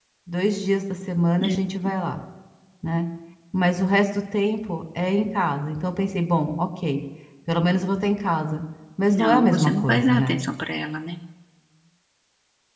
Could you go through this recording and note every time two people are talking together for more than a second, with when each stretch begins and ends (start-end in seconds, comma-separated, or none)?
9.2-10.4